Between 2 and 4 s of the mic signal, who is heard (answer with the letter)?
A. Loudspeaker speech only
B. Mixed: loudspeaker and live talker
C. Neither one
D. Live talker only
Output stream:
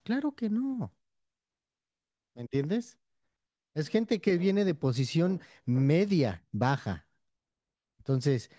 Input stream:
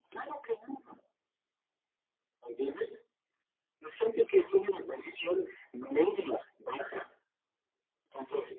A